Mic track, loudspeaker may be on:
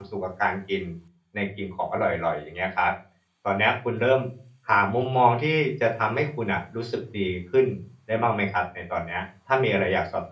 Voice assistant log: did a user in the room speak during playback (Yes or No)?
Yes